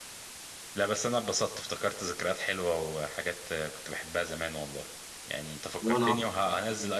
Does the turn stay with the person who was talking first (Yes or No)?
Yes